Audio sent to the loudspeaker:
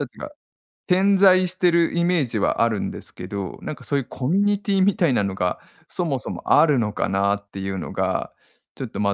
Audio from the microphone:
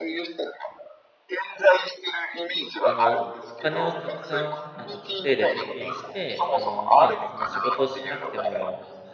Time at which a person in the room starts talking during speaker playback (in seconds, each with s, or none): 2.8 s